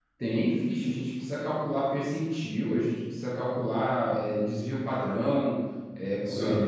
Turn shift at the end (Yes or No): No